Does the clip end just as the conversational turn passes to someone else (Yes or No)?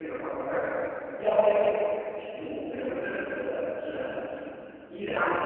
No